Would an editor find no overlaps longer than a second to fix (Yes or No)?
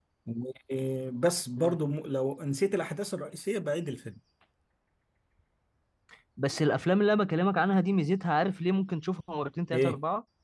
Yes